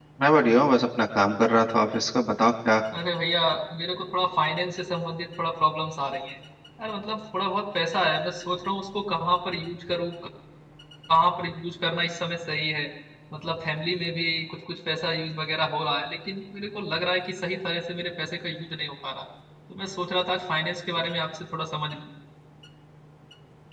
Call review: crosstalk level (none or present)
none